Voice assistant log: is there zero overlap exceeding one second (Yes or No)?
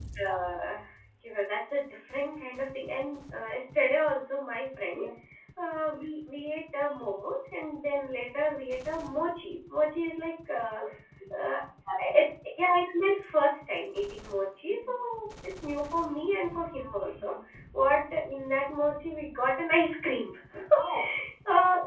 Yes